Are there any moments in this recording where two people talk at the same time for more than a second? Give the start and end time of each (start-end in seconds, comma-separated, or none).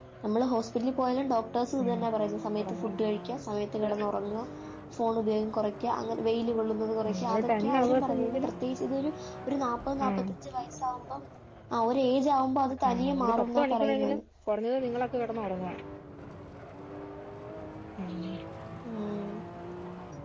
7.1-8.5, 12.9-14.2